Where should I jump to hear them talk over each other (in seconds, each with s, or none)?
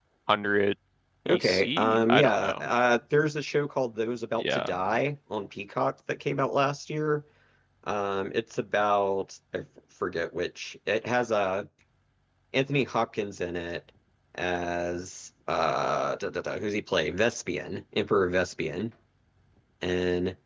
1.3 s